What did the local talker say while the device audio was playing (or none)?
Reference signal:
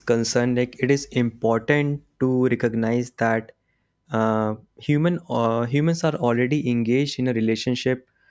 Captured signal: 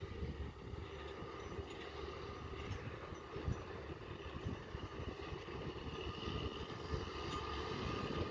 none